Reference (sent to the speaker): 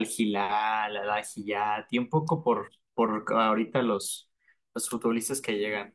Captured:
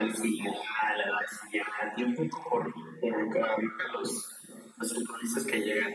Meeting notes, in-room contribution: none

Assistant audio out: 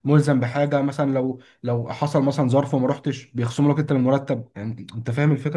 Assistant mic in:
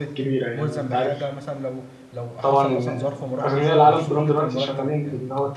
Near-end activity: present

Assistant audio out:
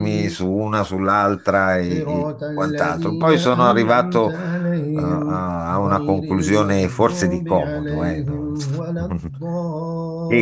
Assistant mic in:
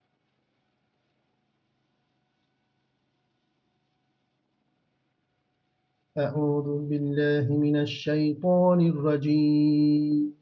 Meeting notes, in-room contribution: present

